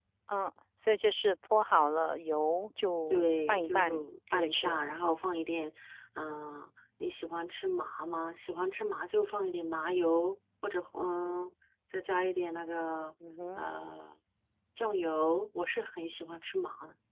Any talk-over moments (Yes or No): Yes